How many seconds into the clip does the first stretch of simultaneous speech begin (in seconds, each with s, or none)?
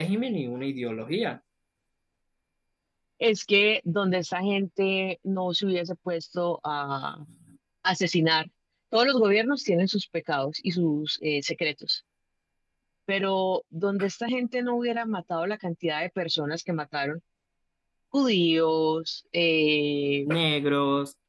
none